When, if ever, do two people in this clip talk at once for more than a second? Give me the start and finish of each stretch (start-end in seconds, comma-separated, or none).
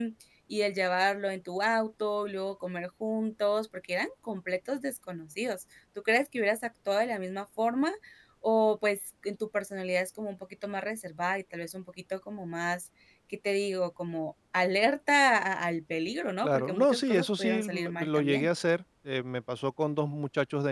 16.4-18.5